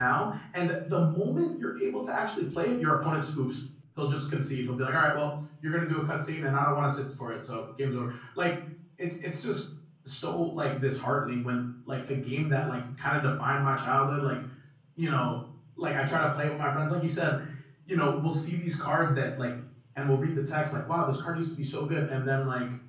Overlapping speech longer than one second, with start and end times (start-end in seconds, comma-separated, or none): none